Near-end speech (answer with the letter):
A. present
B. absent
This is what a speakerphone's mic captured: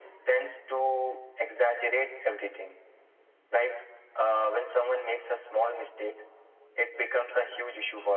B